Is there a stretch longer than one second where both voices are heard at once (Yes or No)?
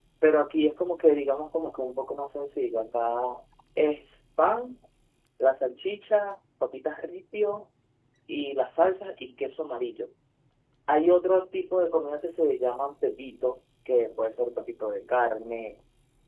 No